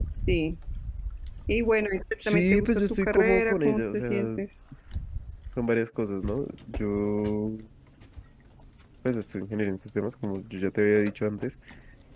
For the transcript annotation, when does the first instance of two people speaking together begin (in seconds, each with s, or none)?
2.3 s